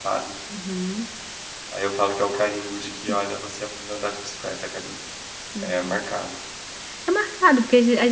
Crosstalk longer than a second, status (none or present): none